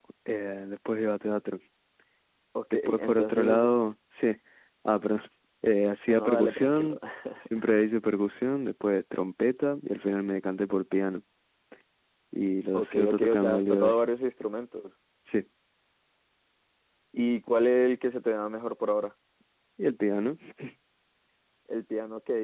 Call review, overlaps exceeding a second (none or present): present